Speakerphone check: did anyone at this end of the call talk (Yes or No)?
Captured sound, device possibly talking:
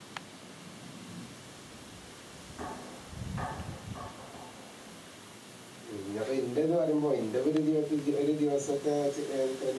Yes